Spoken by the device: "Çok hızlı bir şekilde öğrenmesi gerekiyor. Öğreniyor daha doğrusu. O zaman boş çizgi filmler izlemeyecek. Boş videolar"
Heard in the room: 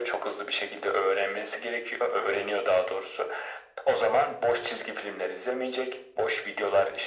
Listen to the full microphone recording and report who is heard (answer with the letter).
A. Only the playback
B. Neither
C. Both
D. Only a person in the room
A